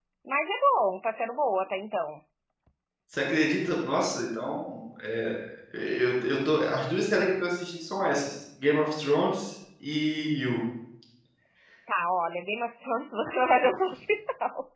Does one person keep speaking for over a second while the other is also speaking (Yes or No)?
No